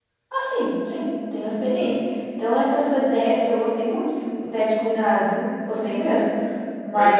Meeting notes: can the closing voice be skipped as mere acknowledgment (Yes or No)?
Yes